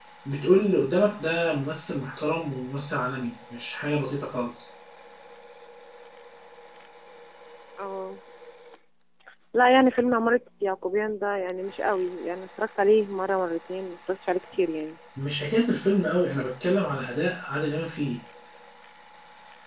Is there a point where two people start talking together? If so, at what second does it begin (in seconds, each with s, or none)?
none